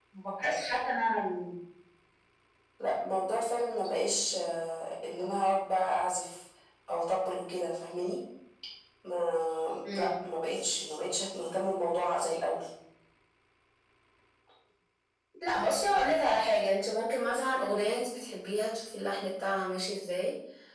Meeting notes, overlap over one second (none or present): none